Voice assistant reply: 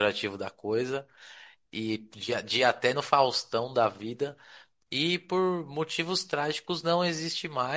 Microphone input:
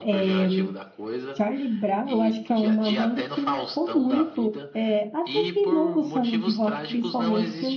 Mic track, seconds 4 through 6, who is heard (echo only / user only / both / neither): both